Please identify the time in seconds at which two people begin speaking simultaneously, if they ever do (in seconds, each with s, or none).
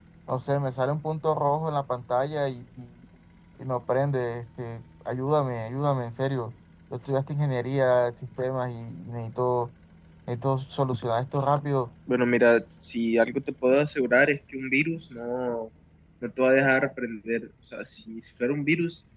none